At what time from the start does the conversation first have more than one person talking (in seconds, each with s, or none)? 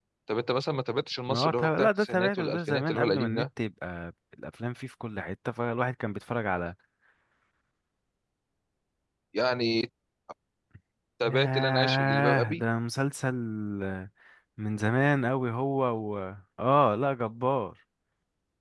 1.3 s